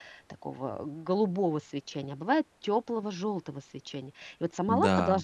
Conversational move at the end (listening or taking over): listening